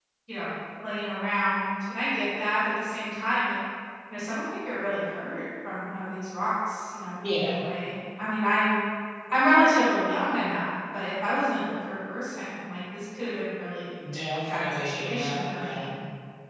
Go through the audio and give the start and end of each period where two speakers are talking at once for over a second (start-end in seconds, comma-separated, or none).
14.5-15.9